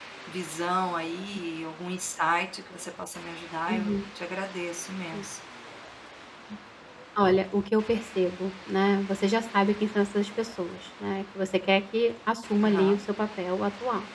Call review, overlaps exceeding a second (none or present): none